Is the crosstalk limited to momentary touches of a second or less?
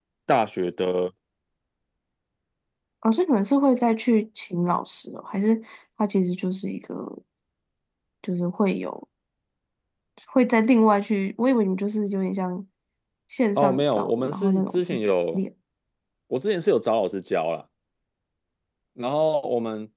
No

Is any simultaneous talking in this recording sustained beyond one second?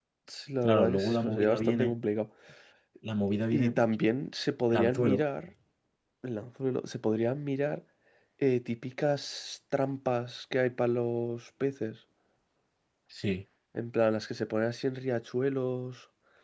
Yes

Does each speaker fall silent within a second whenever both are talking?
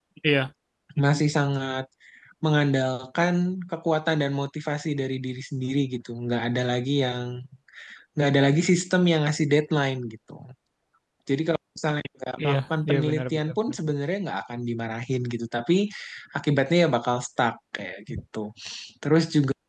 No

